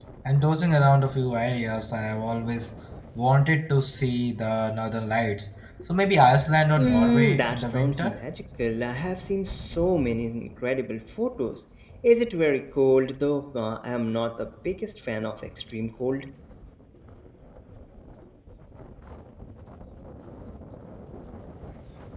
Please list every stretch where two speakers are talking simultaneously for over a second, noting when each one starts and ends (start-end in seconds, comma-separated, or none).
6.8-8.1